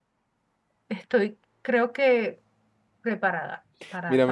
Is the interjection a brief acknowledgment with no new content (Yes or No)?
No